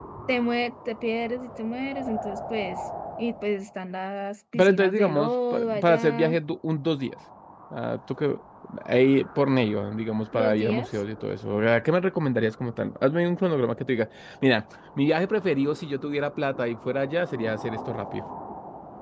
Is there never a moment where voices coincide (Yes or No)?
No